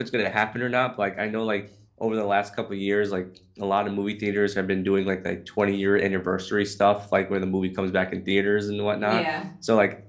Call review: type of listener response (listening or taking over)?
listening